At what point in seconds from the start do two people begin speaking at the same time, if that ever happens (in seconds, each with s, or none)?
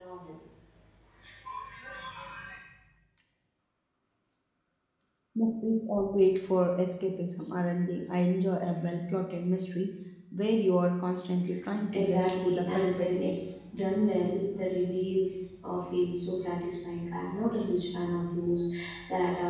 11.9 s